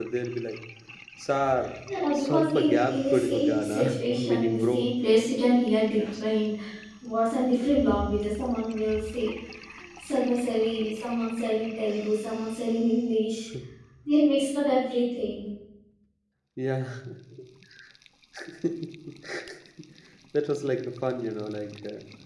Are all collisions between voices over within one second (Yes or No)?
No